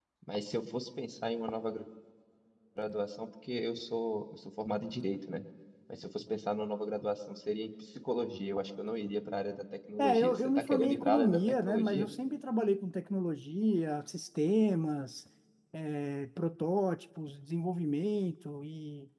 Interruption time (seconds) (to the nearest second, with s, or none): 10 s